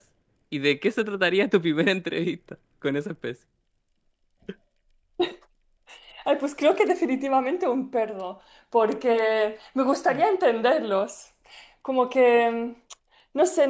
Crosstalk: none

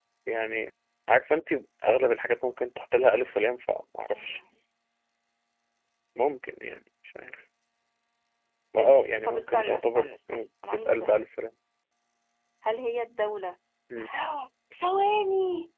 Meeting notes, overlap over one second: present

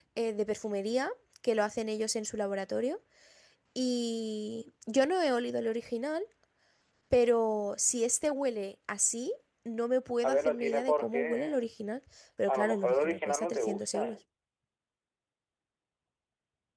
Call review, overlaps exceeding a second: present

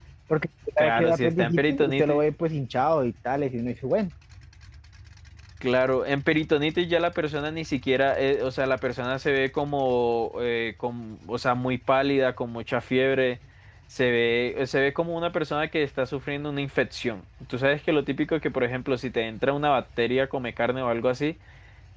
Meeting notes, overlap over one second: present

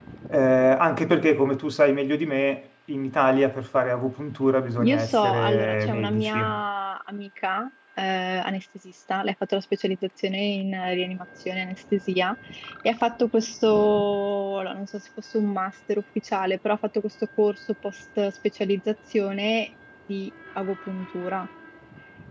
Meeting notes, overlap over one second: present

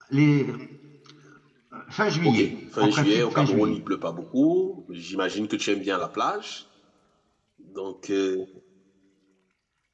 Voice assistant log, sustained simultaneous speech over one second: present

